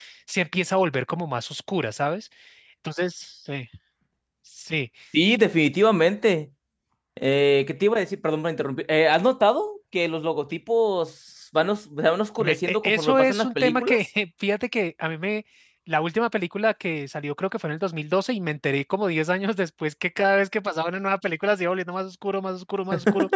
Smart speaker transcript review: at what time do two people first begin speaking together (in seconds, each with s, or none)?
12.4 s